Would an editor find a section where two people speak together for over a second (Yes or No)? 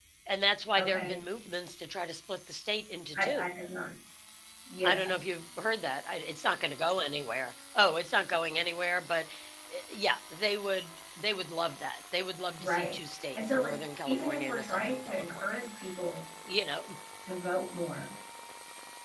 Yes